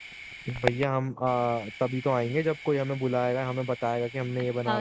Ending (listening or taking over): taking over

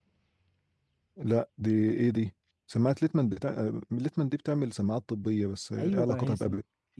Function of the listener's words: taking over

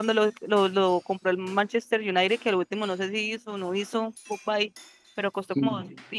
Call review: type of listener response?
listening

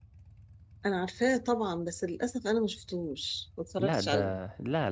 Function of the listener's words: taking over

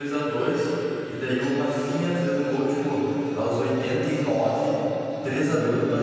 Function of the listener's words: listening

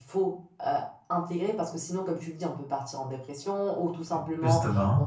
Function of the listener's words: listening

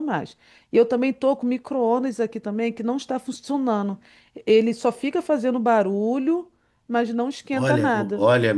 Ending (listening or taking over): taking over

